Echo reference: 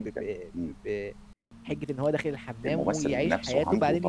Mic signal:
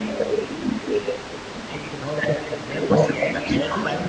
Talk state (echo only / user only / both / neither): echo only